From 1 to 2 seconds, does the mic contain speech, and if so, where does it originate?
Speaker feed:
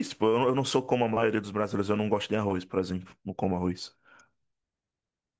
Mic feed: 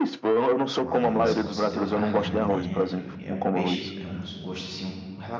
both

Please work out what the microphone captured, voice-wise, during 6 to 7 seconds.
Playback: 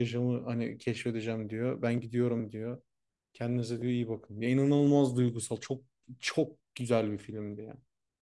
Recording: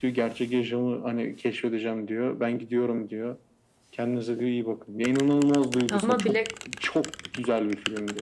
both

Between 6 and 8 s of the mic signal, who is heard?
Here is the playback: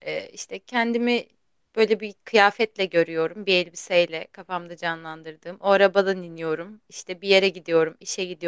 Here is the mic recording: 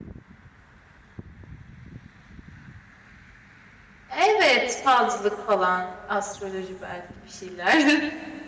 user only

